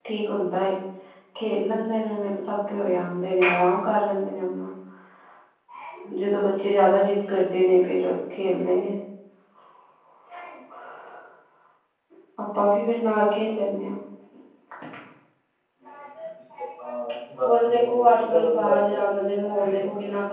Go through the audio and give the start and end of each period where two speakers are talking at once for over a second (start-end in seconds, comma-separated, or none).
17.4-19.0